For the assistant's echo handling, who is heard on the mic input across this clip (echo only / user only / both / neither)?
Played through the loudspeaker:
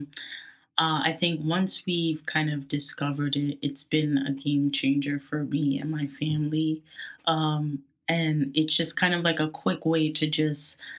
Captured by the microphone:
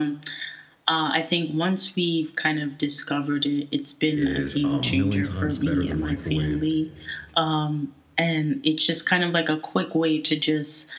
both